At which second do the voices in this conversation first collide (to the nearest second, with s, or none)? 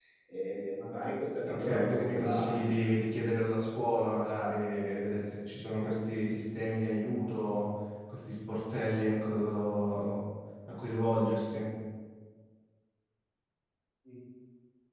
1 s